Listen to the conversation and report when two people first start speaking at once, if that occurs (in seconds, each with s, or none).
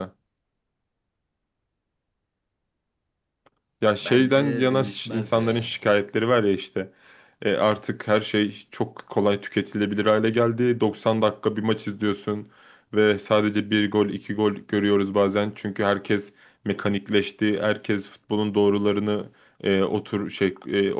4.0 s